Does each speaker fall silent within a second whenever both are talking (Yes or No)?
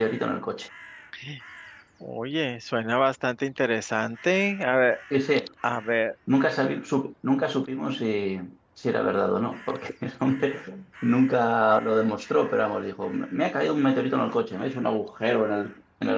Yes